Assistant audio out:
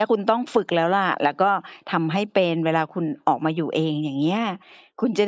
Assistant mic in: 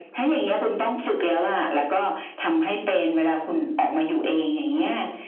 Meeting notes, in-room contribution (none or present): none